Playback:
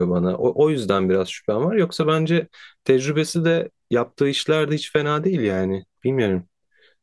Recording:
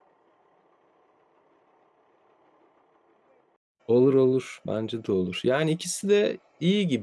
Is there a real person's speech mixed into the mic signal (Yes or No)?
Yes